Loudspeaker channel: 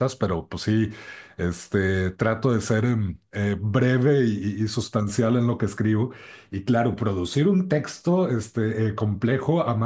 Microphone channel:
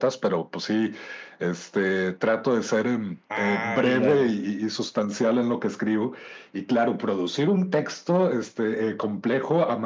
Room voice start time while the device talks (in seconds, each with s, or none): 3.3 s